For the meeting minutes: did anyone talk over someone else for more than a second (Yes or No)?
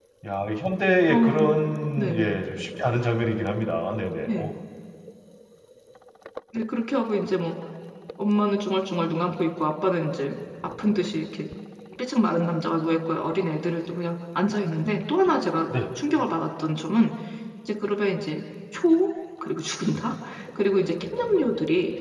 No